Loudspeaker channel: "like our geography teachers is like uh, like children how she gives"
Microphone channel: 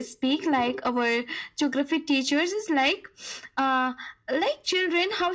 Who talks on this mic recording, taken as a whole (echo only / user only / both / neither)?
echo only